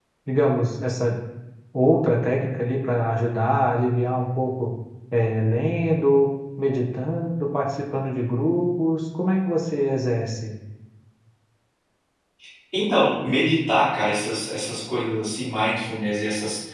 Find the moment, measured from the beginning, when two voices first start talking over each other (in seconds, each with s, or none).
none